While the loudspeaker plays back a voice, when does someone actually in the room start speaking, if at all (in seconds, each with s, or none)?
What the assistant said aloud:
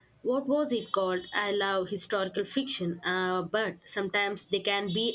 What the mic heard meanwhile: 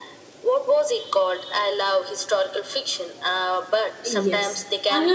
4.0 s